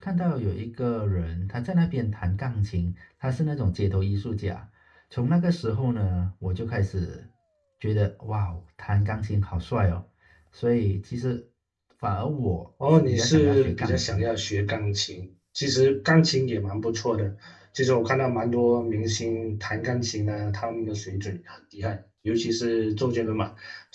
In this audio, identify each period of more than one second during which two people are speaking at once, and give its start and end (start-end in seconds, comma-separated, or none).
13.0-14.3